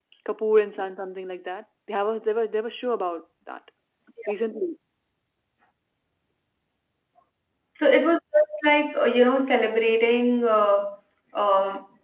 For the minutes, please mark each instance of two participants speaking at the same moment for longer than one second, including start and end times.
none

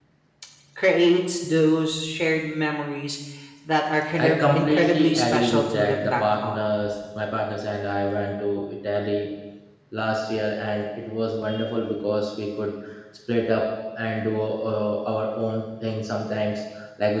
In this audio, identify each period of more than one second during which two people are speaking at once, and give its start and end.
4.2-6.6

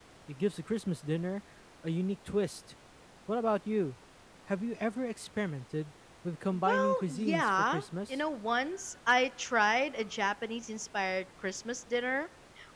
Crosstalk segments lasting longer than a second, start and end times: 6.5-8.2

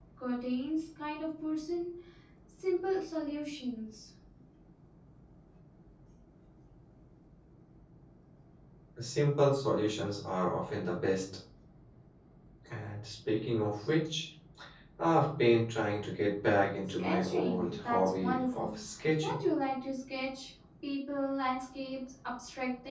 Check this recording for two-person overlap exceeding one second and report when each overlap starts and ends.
17.0-18.8

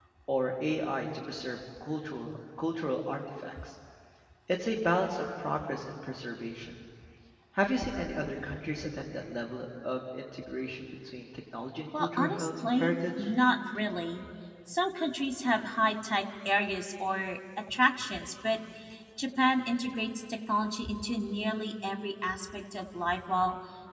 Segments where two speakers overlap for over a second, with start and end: 11.9-13.3

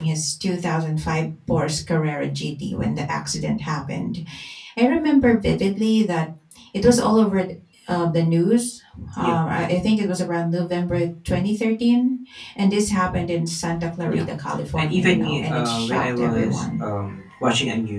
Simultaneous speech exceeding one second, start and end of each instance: 14.8-16.8

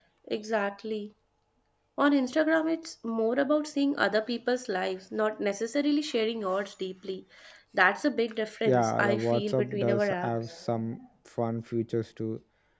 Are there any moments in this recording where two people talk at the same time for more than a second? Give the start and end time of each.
8.7-10.5

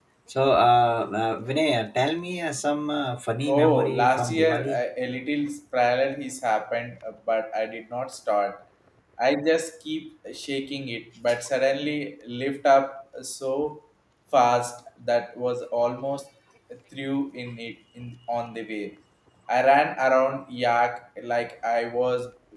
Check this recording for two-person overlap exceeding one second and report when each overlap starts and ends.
3.5-4.8

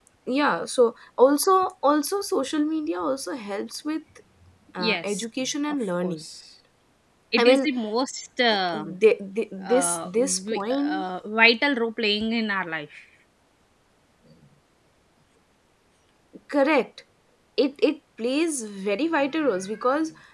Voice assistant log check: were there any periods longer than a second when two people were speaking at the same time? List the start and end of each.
9.6-11.0

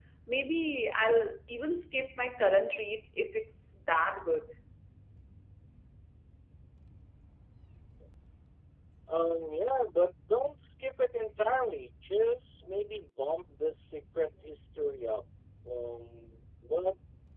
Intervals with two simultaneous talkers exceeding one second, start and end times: none

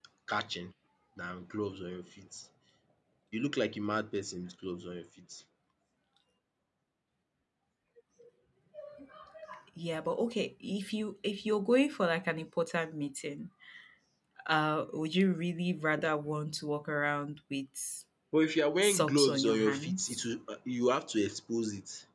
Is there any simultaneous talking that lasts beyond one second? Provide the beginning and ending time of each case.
18.8-20.2

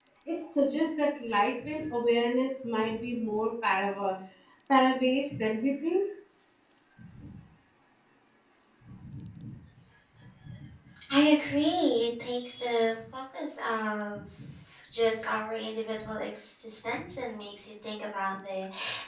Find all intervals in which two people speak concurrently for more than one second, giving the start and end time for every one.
none

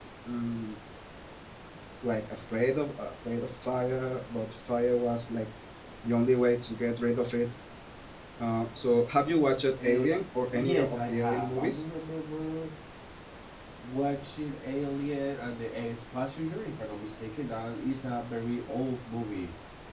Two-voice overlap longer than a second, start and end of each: 10.5-11.8

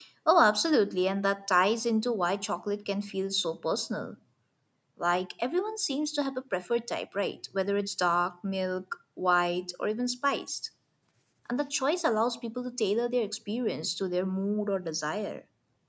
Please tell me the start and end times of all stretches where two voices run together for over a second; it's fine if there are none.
none

